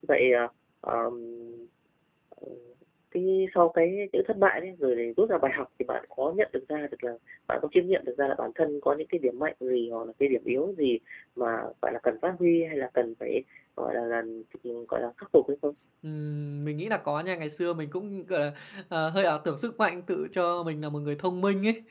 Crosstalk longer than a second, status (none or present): none